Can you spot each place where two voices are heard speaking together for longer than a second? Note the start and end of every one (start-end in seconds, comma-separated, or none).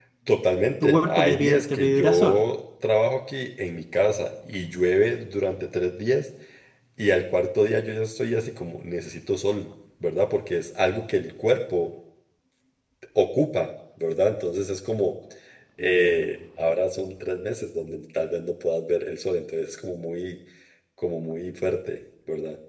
0.8-2.4